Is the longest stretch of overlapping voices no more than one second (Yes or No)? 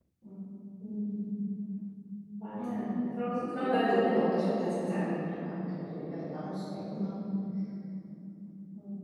No